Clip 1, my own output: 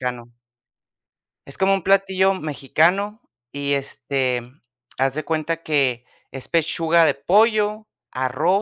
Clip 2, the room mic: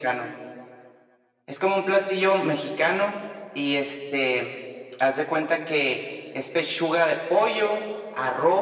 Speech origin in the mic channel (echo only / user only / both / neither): echo only